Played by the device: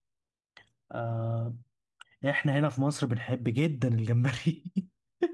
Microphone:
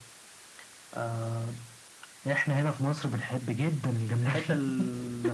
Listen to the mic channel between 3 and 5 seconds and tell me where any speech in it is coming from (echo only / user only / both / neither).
both